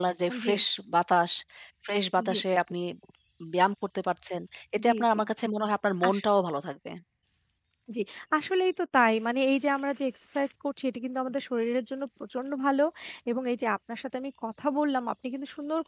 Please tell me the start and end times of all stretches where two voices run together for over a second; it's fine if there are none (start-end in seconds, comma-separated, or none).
none